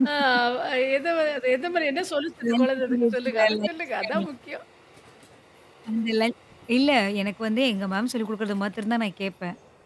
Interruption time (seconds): 2 s

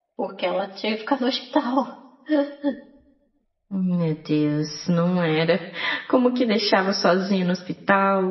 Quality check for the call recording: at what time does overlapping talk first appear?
none

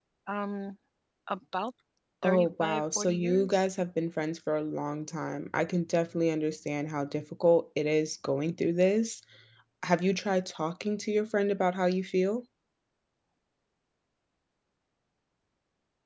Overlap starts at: 2 s

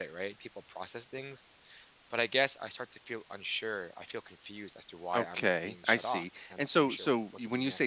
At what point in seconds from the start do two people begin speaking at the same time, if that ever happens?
5 s

